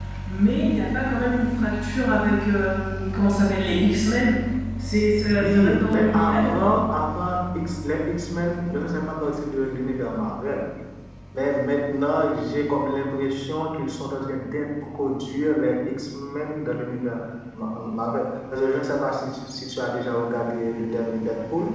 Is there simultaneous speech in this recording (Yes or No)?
Yes